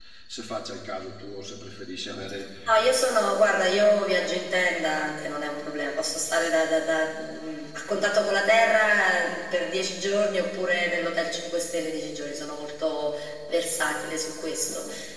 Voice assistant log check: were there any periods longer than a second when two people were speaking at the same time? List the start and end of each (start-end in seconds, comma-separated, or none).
none